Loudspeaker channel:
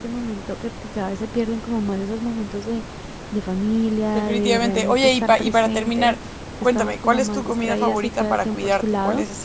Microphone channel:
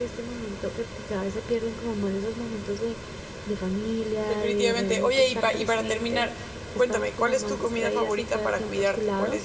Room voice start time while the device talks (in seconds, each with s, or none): none